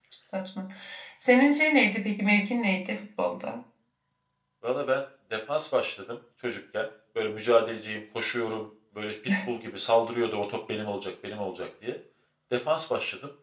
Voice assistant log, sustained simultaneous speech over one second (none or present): none